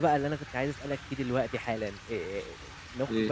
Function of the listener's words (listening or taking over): listening